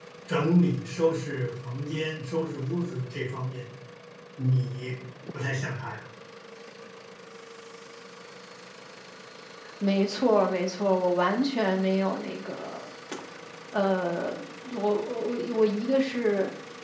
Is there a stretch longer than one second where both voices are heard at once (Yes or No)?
No